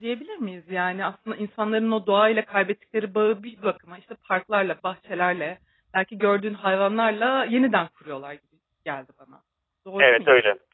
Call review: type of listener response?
taking over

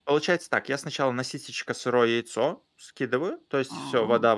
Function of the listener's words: listening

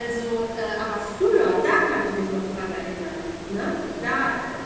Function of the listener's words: listening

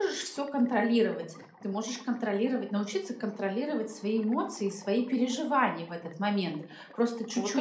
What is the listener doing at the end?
taking over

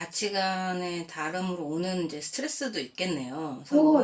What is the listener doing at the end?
taking over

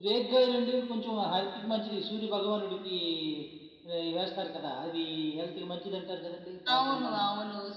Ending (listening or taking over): taking over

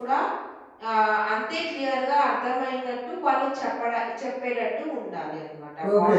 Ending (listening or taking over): taking over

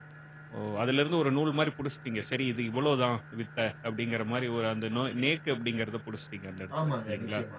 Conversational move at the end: taking over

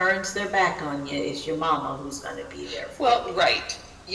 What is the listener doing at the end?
taking over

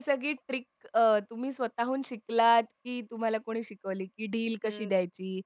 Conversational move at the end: listening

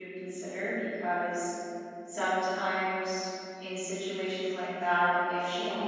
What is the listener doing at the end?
listening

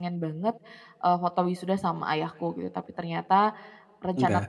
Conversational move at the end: listening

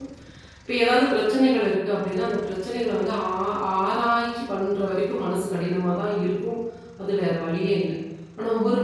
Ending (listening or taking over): listening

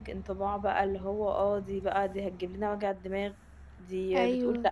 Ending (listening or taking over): listening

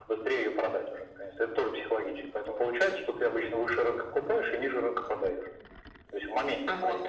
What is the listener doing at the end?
taking over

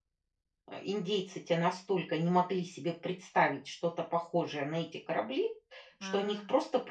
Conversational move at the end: listening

